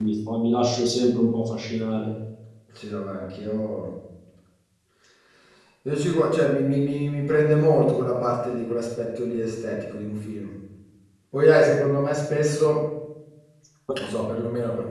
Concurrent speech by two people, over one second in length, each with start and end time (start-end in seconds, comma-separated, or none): none